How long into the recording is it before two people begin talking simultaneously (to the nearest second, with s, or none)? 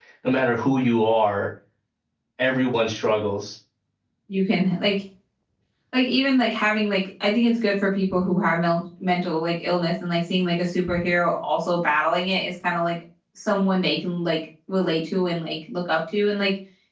none